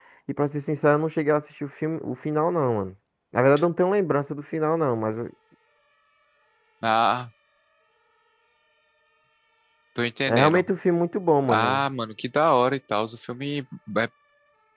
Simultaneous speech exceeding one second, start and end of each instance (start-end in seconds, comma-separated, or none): none